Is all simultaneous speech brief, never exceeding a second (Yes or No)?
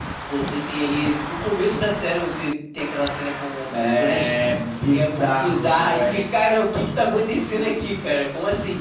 No